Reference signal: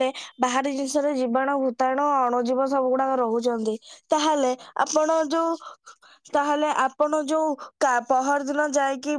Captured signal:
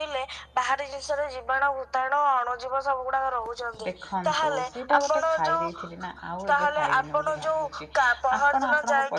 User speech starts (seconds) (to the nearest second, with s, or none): 4 s